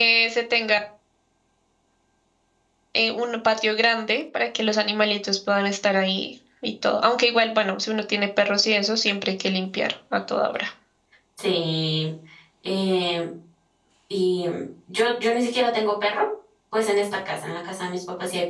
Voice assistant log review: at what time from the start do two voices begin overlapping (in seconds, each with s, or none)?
none